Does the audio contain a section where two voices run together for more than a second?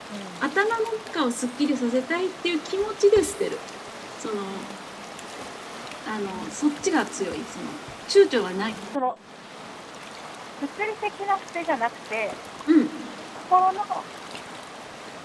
No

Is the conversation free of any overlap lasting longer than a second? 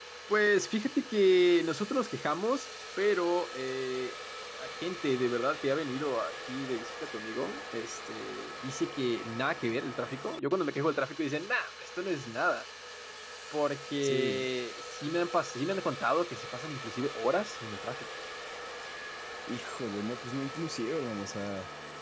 Yes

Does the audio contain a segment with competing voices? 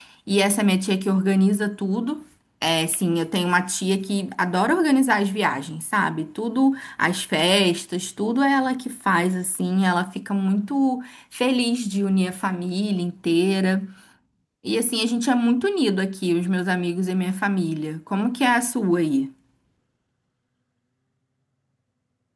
No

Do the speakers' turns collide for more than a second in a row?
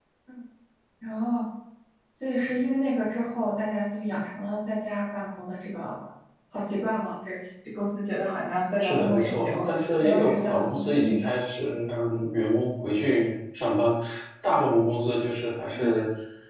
Yes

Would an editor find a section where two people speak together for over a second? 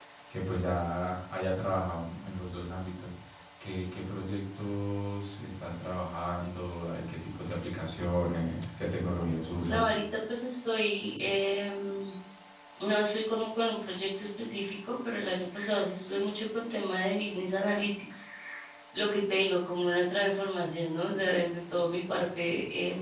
No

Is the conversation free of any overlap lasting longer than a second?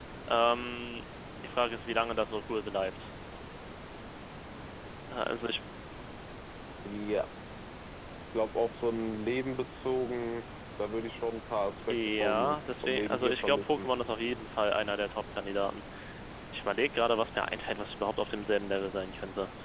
No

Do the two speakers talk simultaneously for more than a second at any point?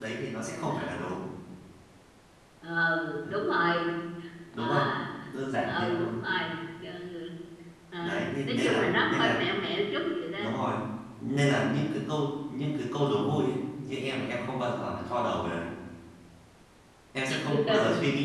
Yes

